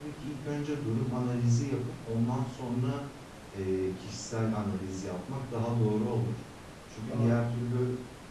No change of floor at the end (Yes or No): Yes